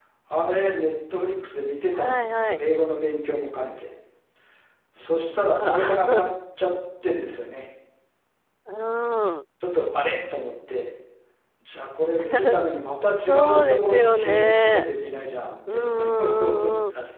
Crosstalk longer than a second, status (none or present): present